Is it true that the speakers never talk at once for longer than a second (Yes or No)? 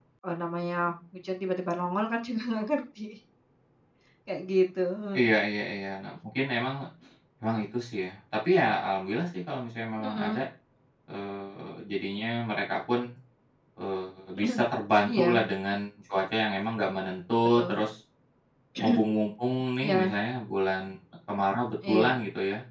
Yes